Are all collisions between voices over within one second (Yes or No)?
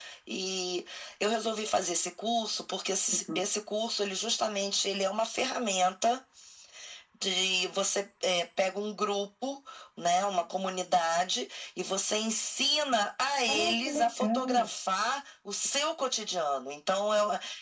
No